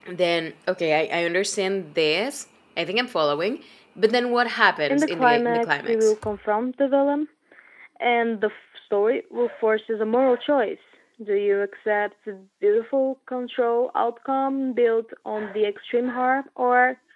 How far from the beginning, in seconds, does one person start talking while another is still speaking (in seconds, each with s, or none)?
4.9 s